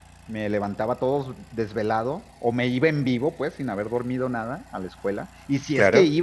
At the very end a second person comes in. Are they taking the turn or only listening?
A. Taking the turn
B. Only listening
B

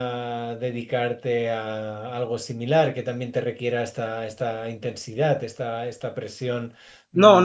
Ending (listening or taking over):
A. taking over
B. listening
A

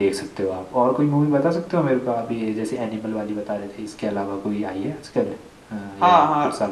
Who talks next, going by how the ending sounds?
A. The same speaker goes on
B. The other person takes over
B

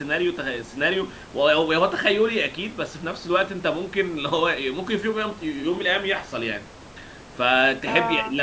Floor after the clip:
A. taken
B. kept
B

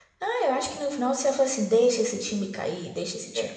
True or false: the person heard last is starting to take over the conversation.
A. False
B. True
B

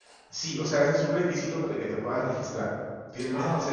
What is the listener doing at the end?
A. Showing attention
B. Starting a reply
A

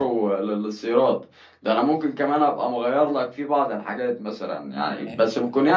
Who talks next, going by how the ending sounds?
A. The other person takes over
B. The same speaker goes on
B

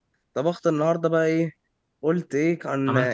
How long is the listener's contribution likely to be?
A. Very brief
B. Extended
A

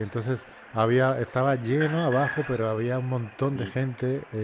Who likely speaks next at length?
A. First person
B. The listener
A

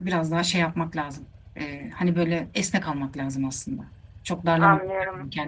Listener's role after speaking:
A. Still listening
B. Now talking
B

